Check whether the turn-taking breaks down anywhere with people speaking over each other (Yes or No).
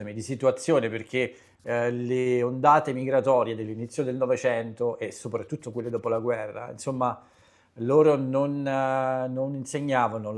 No